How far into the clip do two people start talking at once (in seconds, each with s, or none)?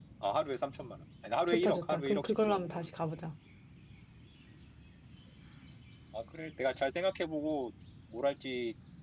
1.5 s